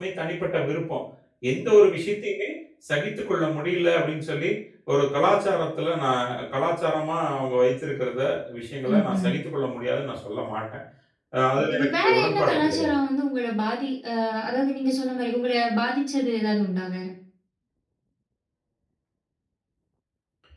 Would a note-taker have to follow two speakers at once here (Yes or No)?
Yes